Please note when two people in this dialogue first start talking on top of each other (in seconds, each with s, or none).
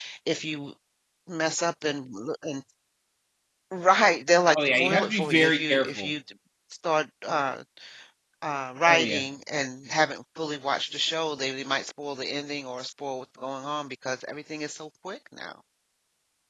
4.5 s